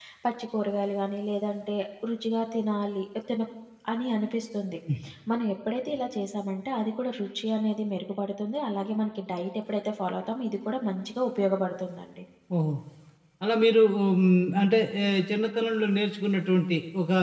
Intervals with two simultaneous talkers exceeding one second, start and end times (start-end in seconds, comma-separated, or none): none